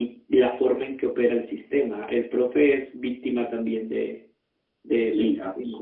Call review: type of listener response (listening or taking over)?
taking over